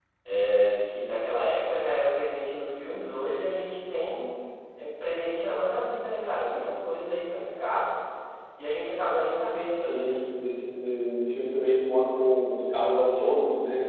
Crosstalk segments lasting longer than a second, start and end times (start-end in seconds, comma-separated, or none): none